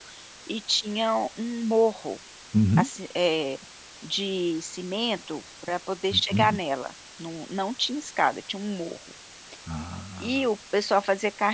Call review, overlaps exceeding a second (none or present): none